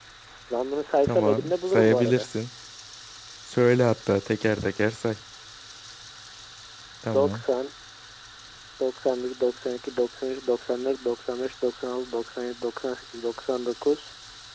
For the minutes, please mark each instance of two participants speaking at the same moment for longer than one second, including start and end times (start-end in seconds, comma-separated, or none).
1.0-2.3